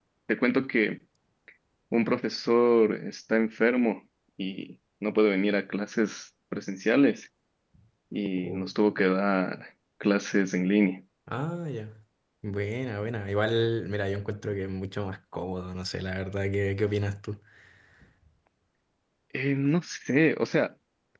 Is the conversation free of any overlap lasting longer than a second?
Yes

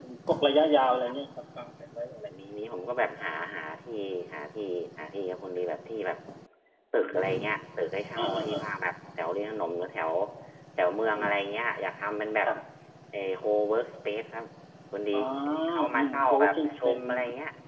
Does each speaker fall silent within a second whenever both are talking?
No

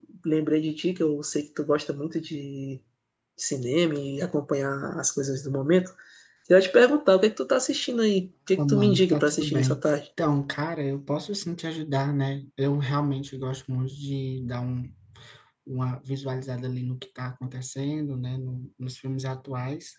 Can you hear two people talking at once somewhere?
Yes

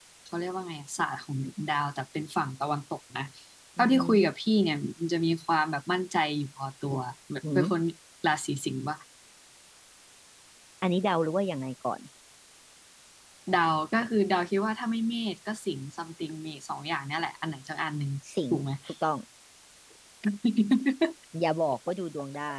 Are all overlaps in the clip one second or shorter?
Yes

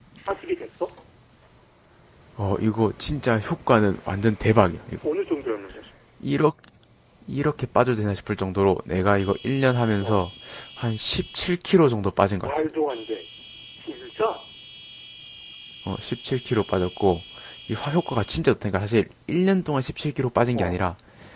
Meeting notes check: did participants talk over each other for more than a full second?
No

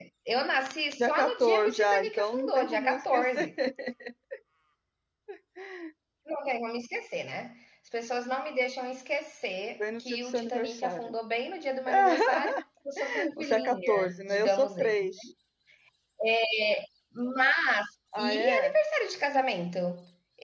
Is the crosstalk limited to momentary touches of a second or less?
No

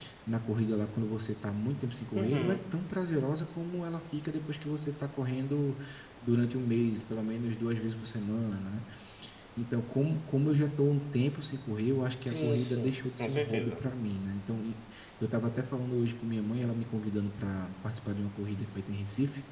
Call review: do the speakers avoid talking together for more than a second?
No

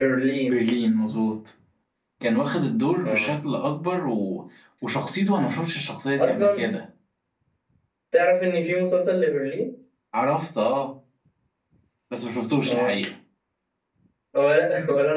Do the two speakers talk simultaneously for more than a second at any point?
No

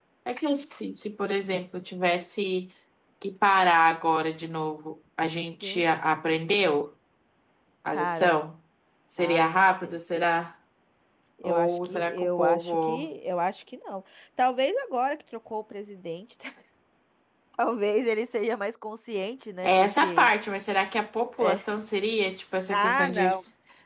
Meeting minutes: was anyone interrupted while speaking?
Yes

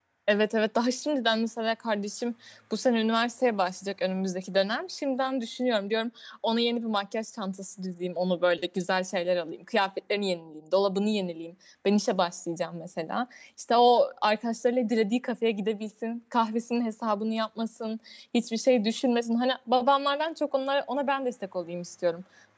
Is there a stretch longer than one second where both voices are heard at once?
No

